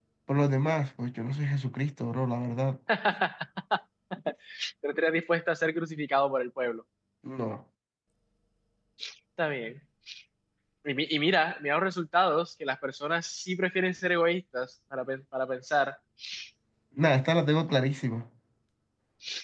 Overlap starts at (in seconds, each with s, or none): none